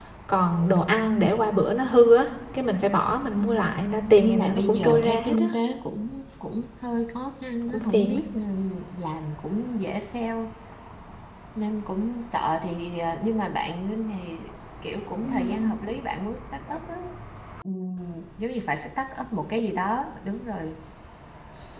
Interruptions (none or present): present